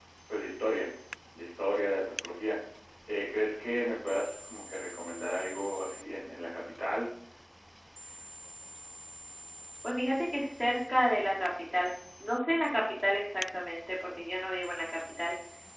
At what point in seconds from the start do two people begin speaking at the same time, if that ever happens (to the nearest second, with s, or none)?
none